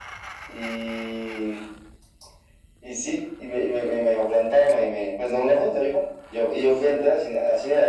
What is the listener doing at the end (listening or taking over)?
listening